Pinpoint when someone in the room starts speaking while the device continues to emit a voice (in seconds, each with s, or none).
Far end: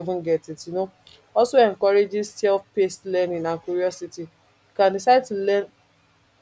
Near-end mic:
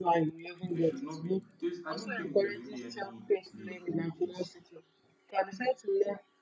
0.7 s